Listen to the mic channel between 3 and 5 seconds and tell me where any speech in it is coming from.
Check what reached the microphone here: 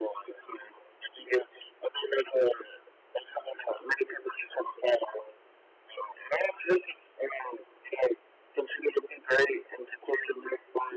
echo only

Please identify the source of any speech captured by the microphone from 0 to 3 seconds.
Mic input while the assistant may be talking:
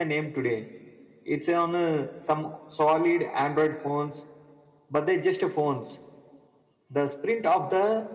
user only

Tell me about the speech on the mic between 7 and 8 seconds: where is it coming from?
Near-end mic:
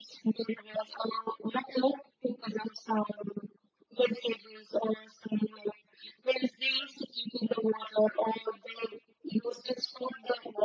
echo only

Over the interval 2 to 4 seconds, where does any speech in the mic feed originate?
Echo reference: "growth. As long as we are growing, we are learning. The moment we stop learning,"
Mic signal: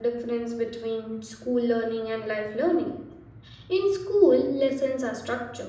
user only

